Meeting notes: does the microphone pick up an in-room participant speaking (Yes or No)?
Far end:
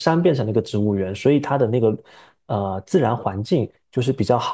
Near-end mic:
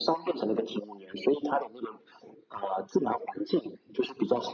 No